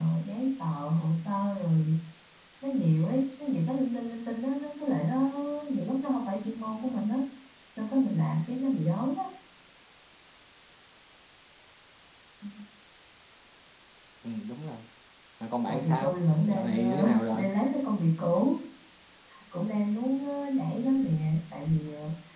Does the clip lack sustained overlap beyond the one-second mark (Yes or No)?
No